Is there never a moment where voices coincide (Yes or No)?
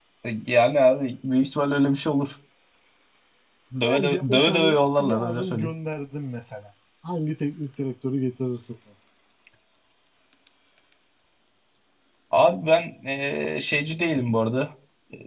No